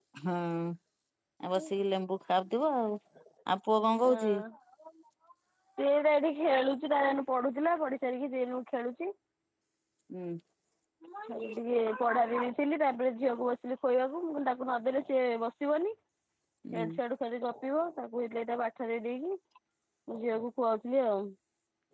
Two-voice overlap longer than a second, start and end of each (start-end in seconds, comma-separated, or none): none